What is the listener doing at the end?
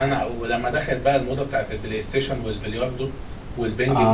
taking over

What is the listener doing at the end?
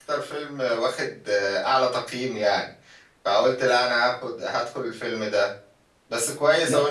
listening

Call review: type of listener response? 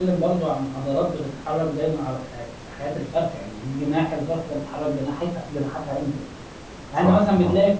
listening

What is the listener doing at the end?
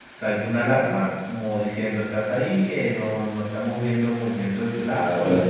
listening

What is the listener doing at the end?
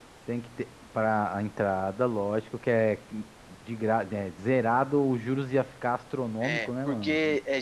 taking over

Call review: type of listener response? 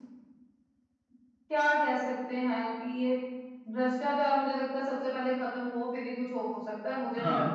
taking over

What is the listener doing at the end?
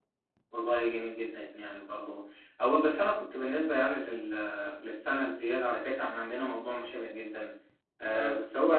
listening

